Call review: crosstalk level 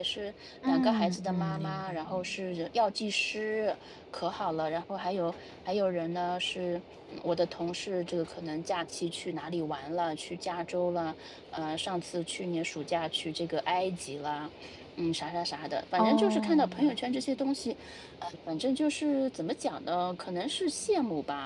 present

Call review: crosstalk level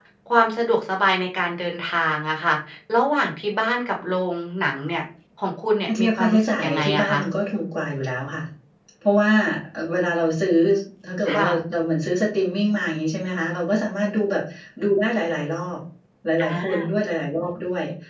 present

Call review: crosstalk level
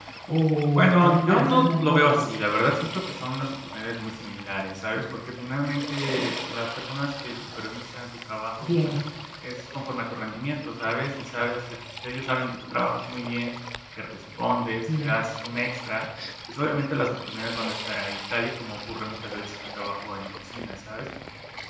present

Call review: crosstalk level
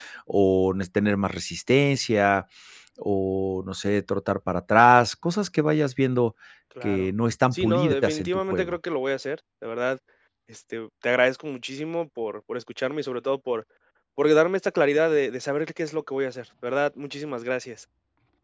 present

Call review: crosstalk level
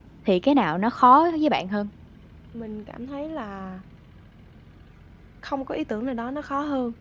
none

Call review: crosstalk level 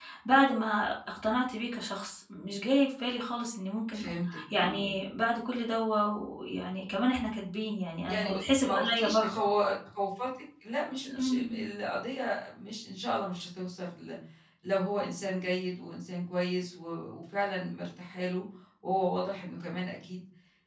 present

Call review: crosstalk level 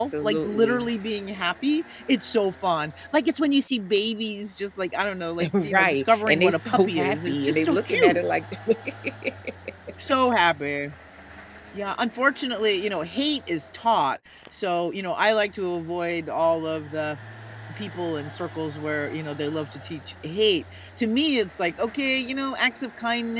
present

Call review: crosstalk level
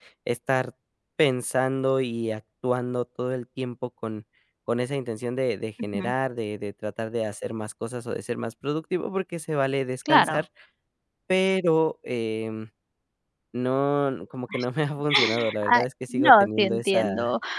present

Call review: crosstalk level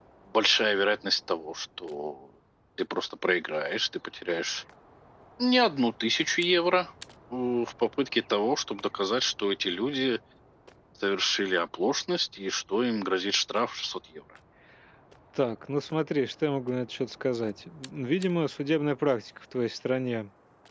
none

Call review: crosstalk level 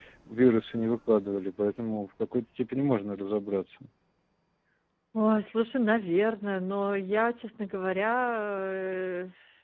none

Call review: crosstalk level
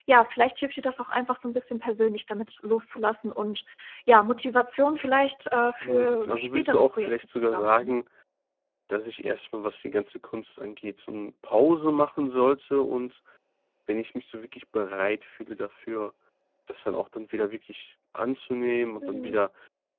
present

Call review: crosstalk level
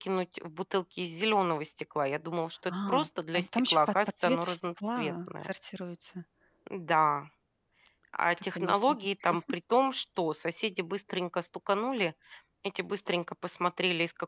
present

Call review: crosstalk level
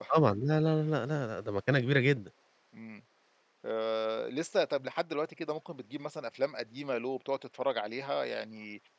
none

